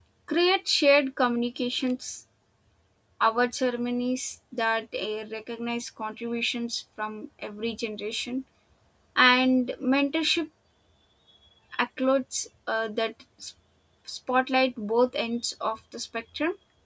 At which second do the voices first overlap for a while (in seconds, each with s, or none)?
none